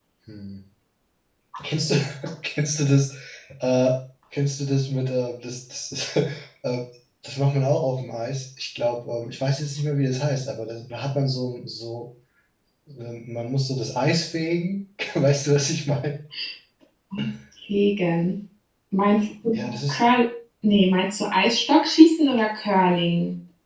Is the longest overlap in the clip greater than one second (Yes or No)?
No